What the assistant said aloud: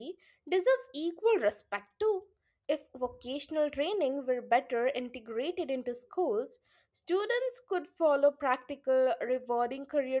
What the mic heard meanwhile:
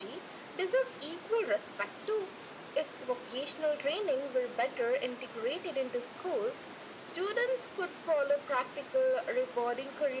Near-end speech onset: none

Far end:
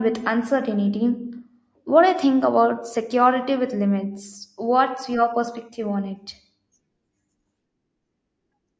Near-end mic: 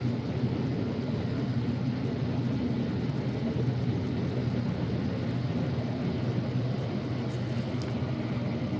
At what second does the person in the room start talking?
none

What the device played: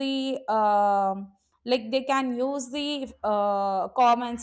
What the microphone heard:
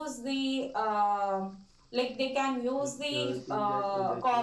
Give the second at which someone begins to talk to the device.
3 s

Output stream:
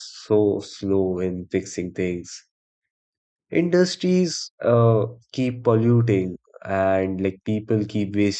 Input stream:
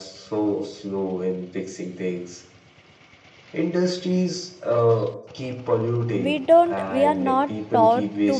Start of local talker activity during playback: 6 s

